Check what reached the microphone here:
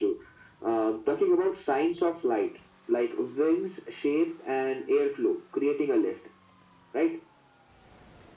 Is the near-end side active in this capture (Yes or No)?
No